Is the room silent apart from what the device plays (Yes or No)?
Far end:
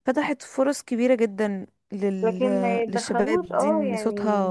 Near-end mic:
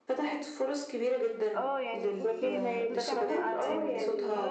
No